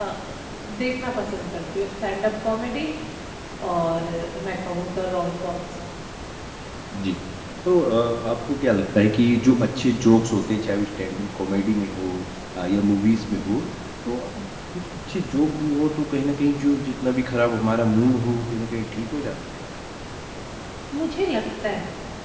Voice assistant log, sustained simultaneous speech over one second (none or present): none